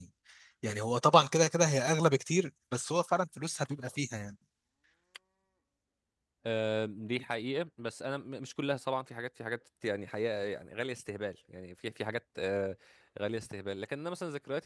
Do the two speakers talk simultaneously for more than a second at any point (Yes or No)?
No